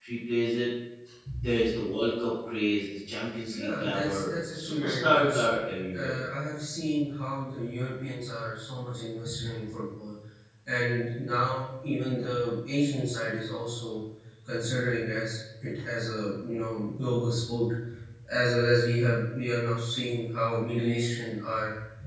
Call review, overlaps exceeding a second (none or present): present